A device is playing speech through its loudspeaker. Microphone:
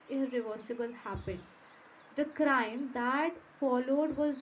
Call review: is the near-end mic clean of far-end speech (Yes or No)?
Yes